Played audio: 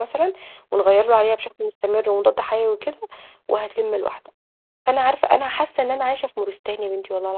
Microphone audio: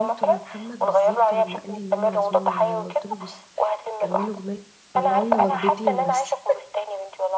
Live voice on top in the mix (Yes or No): No